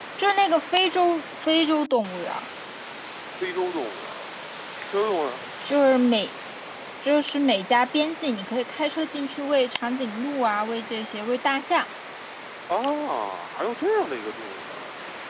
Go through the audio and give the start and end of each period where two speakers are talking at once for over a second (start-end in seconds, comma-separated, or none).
none